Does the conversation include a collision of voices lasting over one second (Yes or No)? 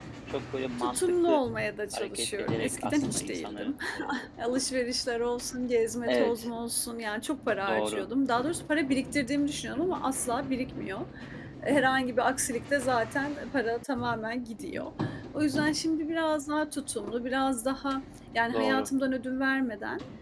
Yes